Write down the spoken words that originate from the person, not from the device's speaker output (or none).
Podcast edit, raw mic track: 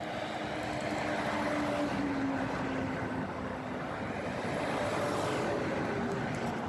none